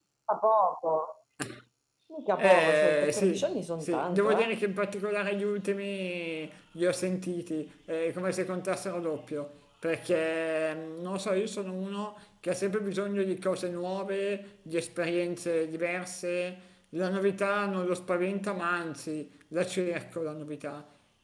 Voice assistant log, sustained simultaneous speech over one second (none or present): present